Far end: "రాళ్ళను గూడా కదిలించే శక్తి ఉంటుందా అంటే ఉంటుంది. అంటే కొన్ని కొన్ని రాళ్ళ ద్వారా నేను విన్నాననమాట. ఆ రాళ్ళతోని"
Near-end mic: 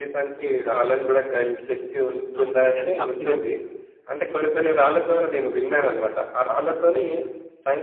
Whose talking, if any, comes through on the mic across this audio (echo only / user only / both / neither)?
both